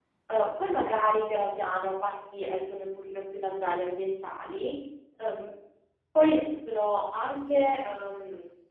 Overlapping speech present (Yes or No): No